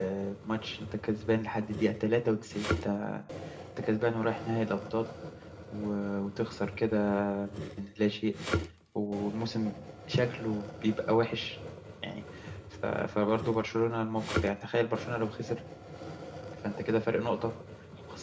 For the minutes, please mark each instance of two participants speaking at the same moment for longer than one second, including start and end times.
none

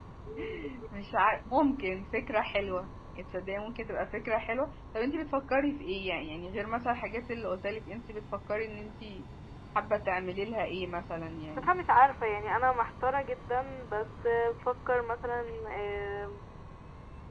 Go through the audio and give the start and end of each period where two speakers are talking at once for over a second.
none

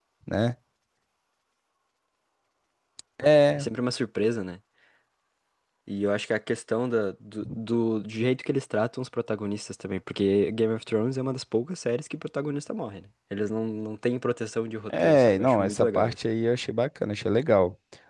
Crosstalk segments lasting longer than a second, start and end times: 14.9-16.2

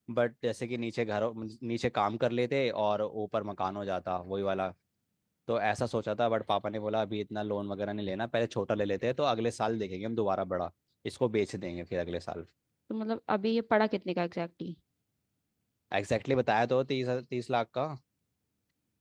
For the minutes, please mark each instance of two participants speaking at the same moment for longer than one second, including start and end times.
none

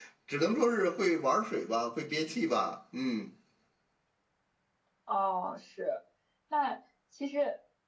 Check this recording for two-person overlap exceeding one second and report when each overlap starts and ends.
none

